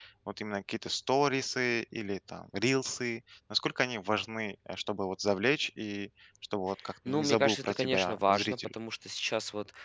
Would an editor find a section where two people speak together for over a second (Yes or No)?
Yes